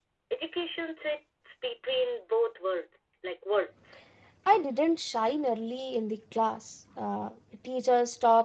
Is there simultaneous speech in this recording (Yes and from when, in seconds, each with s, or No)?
No